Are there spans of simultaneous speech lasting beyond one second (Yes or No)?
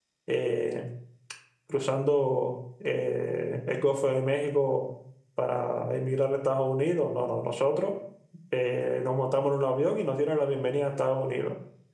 No